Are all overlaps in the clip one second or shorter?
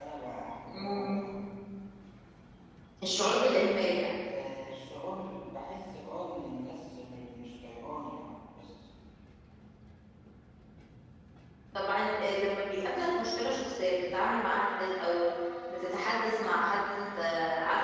Yes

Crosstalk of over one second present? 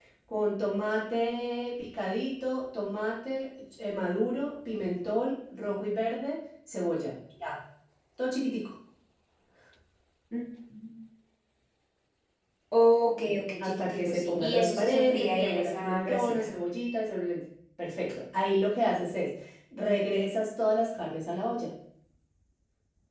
Yes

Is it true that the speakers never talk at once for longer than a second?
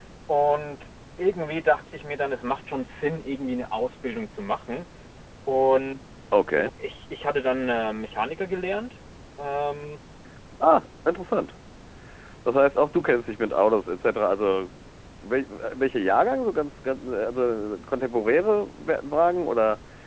Yes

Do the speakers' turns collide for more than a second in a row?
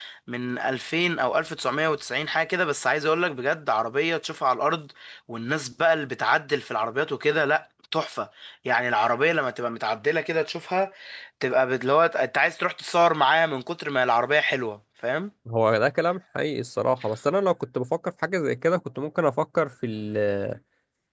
No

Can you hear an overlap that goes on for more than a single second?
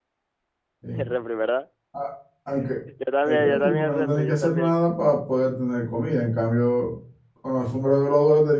Yes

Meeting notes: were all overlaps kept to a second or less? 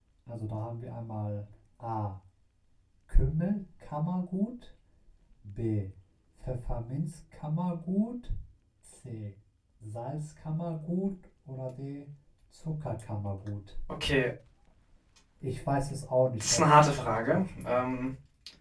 No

